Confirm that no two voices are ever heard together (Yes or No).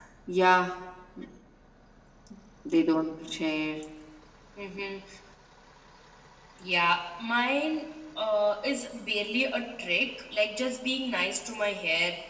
Yes